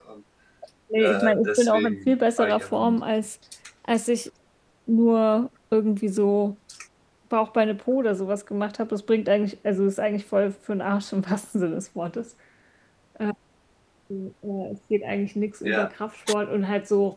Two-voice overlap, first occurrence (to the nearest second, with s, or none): 1 s